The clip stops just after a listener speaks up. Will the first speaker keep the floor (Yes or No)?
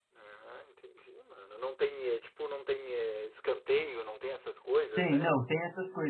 No